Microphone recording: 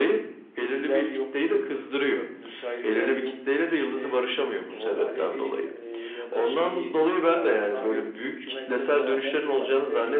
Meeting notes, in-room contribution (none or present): none